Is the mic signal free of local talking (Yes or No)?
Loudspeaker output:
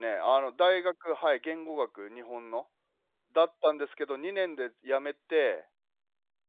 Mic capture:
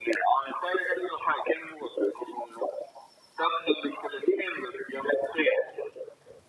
Yes